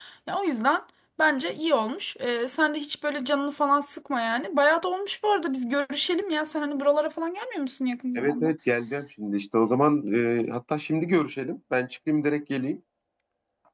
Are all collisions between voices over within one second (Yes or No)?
Yes